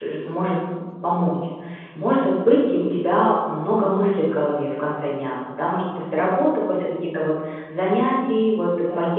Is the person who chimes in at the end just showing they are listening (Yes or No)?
Yes